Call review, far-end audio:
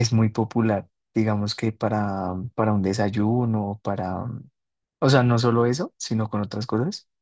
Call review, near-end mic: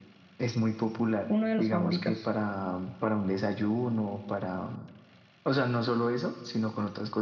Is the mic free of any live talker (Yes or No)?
No